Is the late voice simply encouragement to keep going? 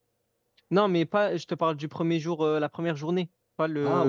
No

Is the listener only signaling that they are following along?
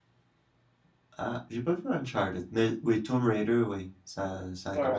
No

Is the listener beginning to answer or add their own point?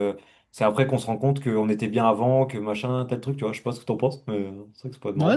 Yes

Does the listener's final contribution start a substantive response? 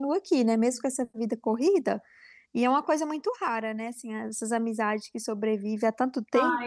Yes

